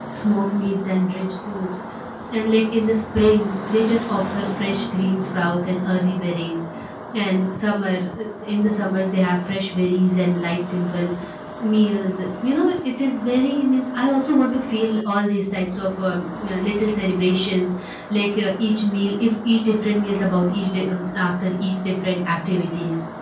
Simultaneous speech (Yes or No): No